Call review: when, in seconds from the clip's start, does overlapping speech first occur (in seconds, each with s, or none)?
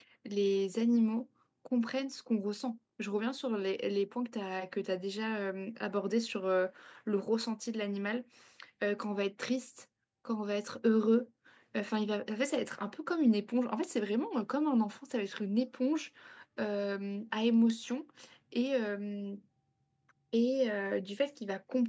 none